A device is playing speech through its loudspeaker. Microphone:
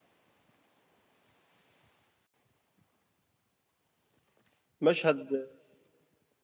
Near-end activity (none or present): present